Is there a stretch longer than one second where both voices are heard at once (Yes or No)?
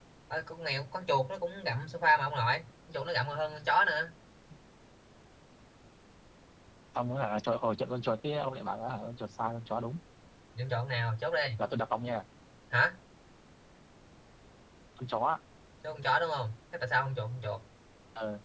No